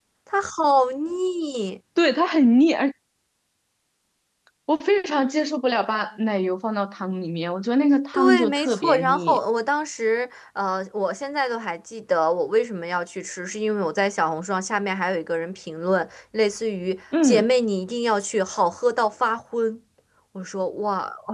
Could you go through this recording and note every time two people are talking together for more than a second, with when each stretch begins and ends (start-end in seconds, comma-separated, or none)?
8.1-9.4